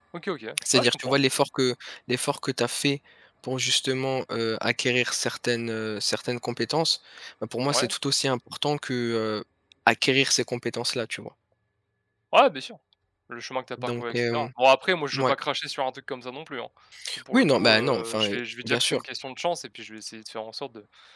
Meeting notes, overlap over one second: present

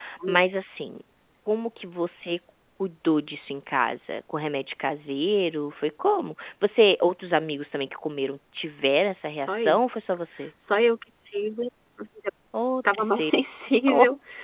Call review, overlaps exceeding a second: none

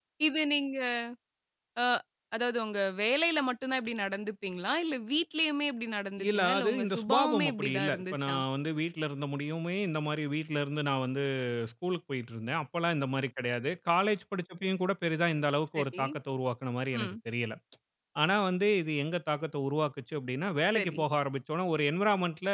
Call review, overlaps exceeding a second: present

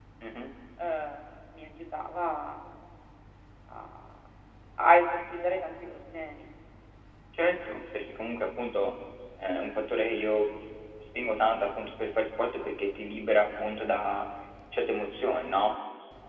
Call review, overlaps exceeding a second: none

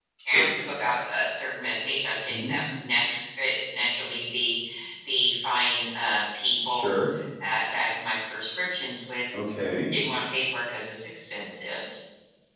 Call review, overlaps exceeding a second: none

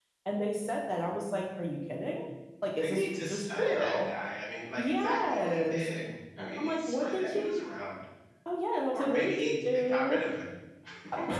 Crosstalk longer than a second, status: present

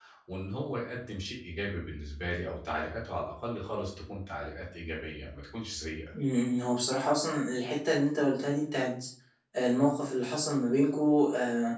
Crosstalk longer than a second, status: none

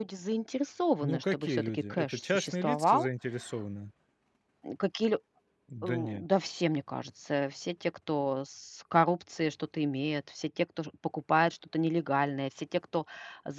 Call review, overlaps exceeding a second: present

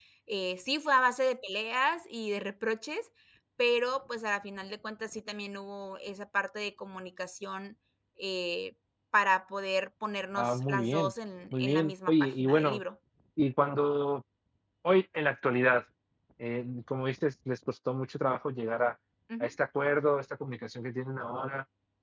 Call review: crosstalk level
present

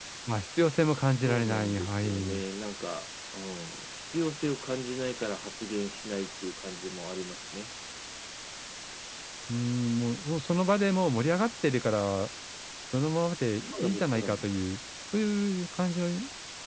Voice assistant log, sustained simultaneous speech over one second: present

